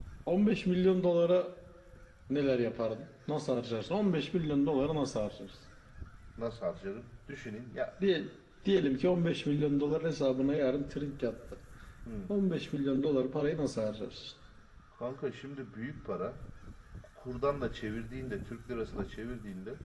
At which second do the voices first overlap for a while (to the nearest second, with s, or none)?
none